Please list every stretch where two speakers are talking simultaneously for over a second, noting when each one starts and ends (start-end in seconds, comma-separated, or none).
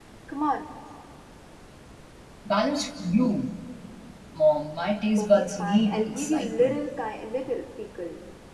5.2-6.8